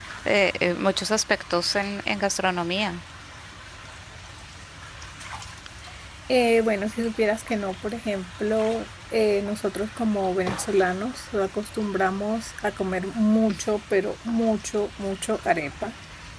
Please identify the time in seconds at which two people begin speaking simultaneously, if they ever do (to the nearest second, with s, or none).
none